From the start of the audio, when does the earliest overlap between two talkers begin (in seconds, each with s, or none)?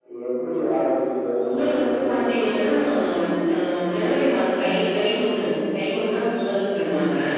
1.4 s